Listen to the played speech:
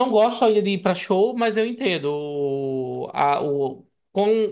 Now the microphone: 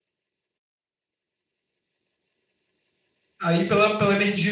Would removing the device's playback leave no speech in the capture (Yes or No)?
No